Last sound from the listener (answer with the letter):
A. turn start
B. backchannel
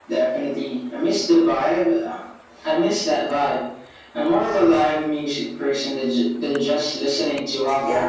A